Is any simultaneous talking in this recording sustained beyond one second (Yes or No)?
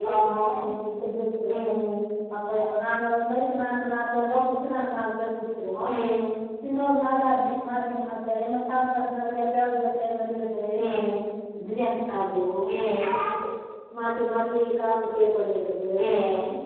No